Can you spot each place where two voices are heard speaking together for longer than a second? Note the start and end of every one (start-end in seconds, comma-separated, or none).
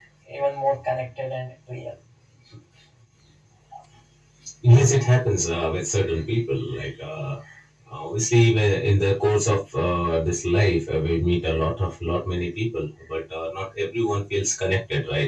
none